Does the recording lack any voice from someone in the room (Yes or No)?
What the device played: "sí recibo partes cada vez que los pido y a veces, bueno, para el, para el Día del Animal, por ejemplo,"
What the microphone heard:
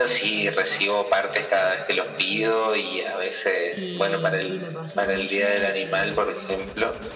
No